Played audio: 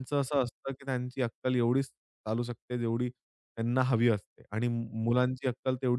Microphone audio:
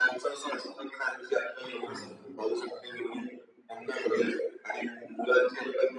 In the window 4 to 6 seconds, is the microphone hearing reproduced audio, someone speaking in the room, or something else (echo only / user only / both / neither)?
echo only